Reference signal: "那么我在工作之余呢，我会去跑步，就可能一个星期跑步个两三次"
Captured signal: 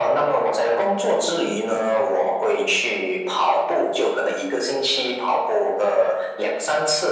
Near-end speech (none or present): none